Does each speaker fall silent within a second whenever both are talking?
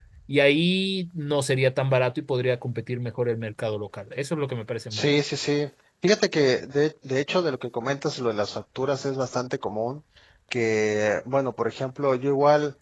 Yes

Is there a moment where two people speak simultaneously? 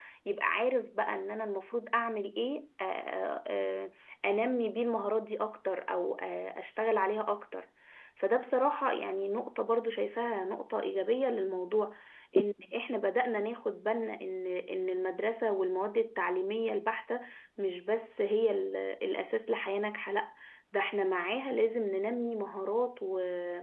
No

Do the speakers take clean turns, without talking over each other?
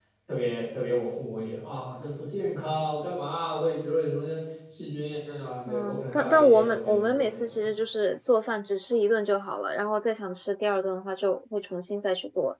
No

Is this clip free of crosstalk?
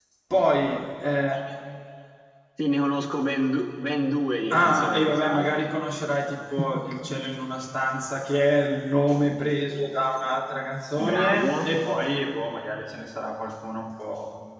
No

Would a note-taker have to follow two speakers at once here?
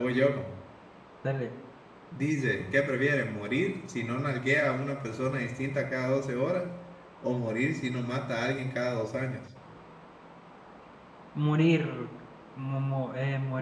No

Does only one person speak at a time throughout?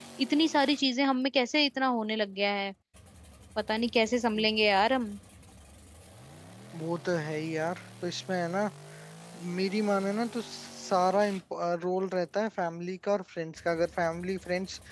Yes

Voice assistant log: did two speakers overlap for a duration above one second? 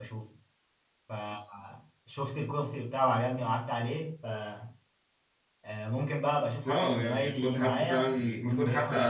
Yes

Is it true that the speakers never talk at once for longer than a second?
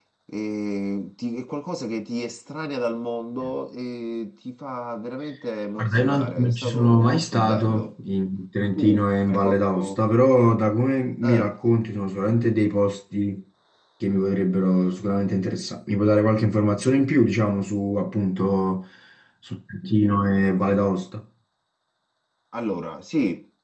No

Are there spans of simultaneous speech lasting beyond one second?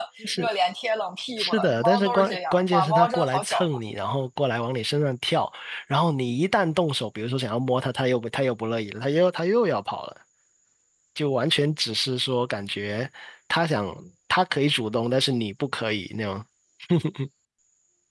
Yes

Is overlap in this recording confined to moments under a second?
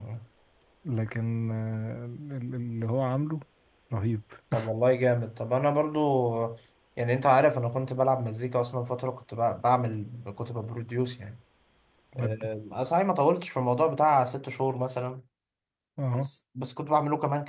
Yes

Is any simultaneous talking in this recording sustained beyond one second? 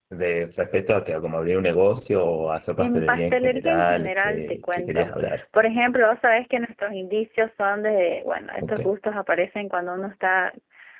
Yes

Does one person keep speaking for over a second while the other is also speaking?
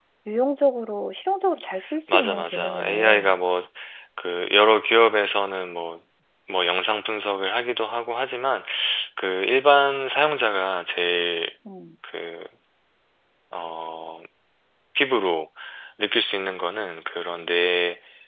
Yes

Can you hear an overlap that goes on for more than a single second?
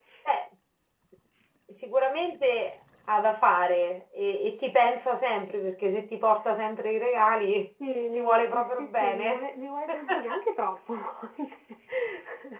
Yes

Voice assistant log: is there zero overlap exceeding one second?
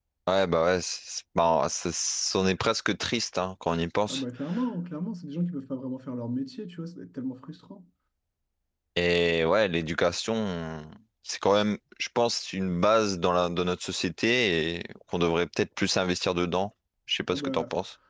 Yes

